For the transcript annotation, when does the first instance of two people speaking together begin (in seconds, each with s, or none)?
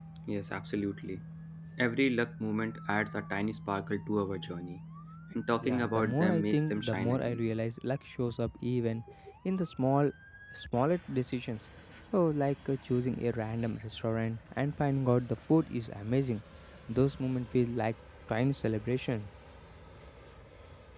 5.6 s